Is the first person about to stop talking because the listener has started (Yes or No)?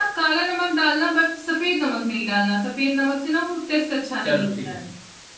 Yes